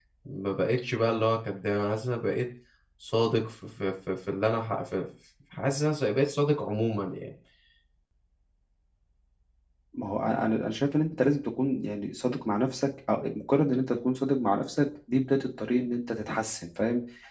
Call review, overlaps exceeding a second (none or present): none